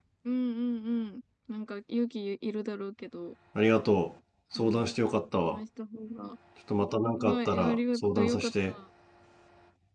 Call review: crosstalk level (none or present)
present